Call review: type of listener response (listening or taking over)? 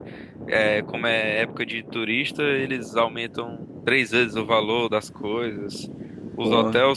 listening